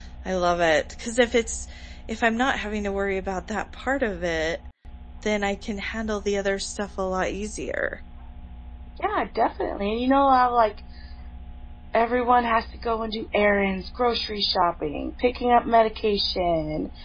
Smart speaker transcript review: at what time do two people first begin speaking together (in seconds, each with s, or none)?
none